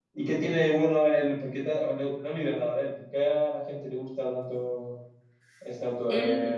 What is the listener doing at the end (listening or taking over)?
taking over